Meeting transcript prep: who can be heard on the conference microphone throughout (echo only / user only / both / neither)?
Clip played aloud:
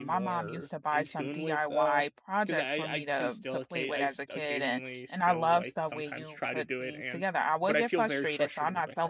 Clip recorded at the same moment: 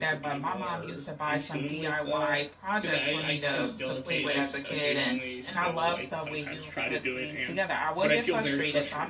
echo only